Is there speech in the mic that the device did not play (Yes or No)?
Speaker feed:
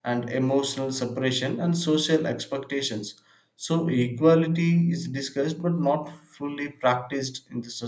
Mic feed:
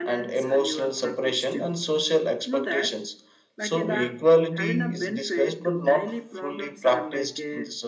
Yes